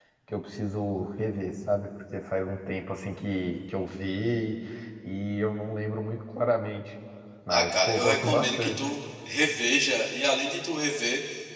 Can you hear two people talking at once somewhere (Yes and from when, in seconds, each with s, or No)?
Yes, from 7.5 s